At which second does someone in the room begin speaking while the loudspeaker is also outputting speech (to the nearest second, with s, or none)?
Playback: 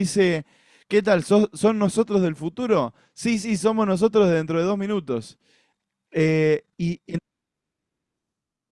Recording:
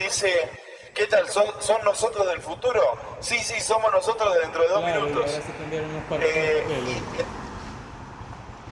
5 s